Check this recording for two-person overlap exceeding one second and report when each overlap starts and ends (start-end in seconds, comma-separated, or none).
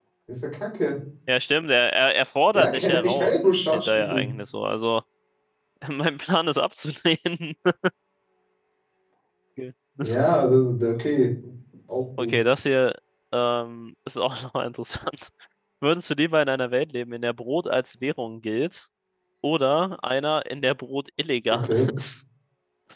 2.5-4.2